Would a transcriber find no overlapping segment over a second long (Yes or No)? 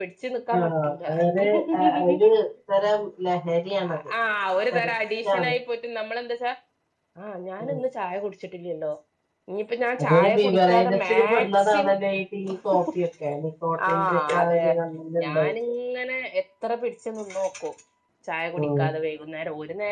No